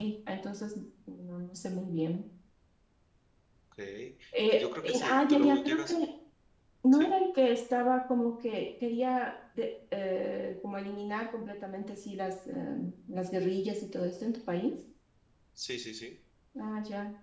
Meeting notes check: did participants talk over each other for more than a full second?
Yes, from 4.5 s

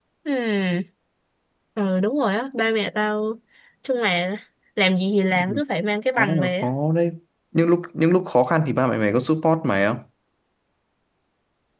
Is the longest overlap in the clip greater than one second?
No

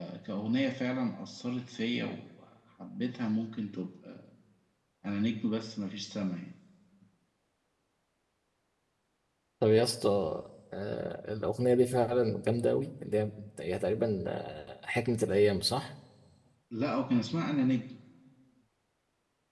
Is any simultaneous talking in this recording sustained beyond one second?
No

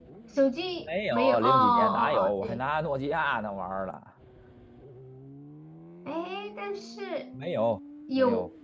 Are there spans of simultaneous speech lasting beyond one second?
Yes, from 1.1 s

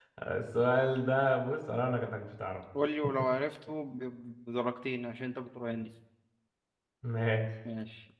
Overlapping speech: No

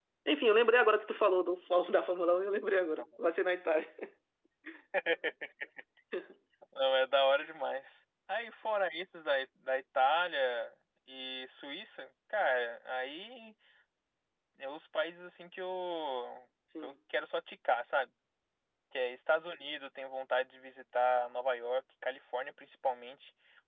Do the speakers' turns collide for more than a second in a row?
No

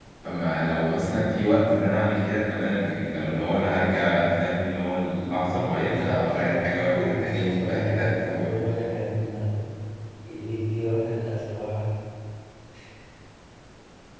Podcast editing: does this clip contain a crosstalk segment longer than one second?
Yes, from 5.5 s

